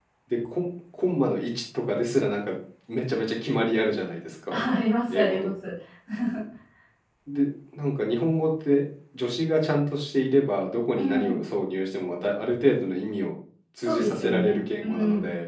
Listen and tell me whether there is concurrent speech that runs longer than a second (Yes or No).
Yes